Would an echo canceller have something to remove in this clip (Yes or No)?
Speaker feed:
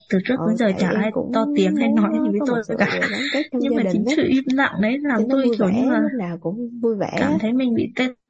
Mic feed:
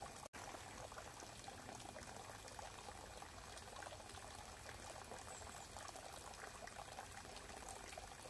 No